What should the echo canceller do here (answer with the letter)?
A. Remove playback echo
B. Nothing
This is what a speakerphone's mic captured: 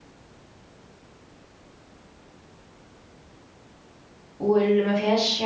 B